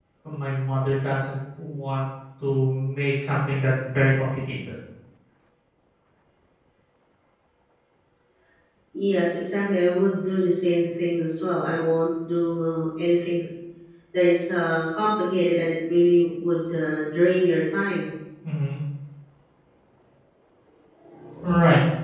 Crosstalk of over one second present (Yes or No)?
No